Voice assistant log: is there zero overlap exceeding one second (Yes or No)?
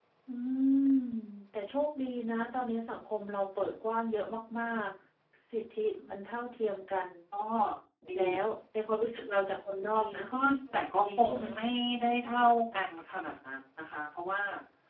Yes